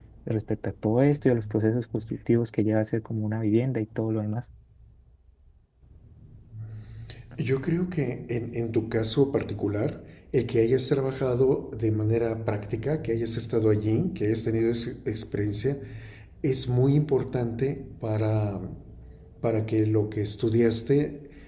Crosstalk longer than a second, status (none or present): none